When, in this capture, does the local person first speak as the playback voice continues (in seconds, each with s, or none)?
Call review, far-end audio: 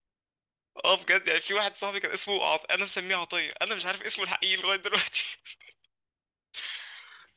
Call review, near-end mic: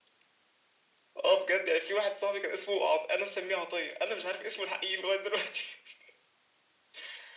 none